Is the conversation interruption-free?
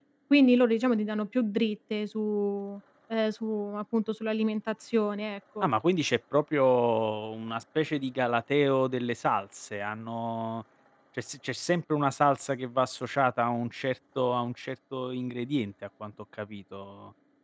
Yes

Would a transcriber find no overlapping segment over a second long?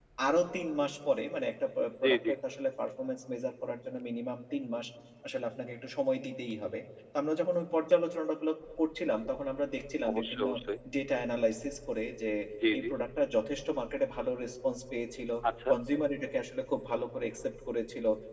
Yes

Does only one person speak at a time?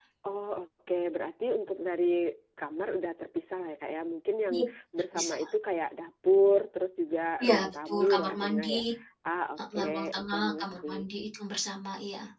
No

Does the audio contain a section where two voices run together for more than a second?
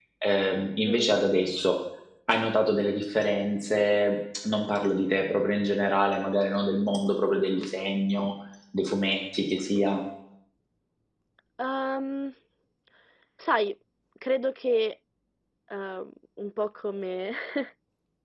No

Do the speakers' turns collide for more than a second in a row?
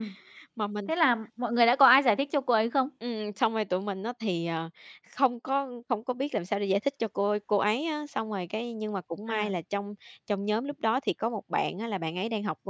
No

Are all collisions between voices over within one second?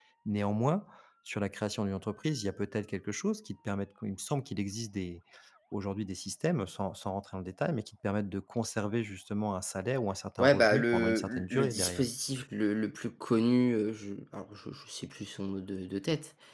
No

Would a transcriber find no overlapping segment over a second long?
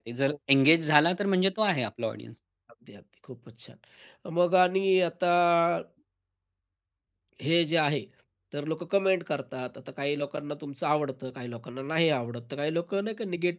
Yes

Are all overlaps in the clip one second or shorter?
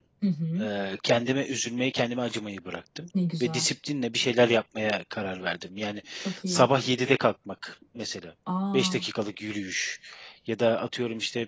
Yes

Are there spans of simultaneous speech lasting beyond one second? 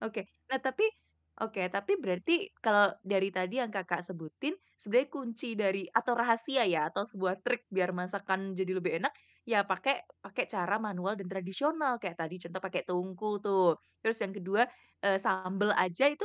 No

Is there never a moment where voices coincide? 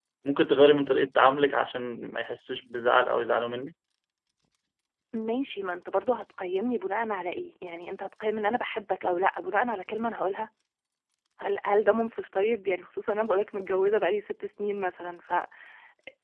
Yes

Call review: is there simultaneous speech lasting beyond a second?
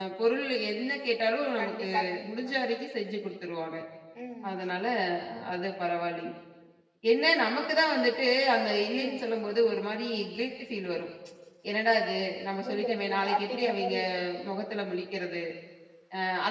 Yes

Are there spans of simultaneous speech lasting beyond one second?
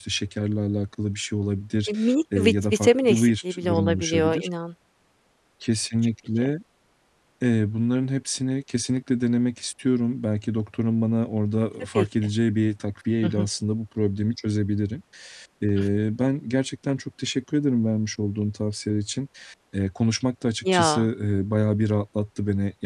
Yes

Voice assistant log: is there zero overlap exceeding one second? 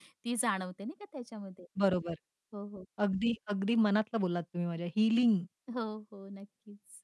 Yes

